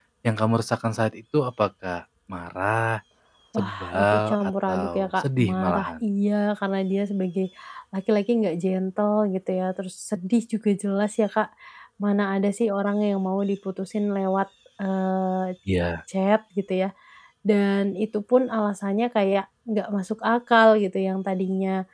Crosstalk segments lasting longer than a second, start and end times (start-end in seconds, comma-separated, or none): 3.6-5.9